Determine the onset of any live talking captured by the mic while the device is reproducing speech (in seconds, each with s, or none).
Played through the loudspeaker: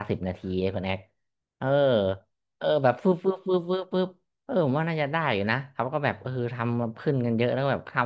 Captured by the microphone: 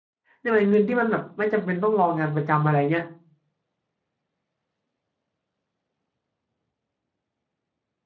0.4 s